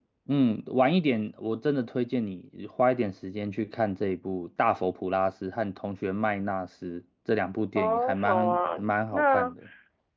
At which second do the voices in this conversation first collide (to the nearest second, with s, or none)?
8 s